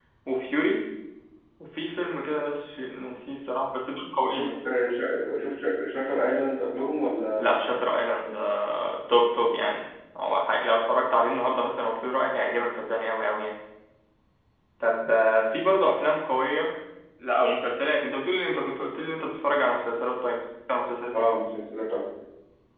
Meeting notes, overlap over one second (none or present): none